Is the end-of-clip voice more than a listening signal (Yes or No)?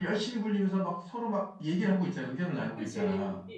Yes